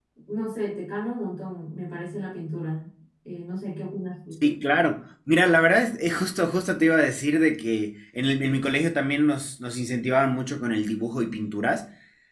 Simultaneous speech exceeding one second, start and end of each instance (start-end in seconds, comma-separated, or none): none